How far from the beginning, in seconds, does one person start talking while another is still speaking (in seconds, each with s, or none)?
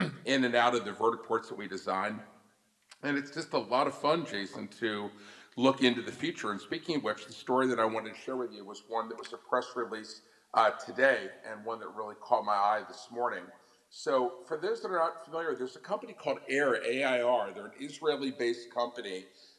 none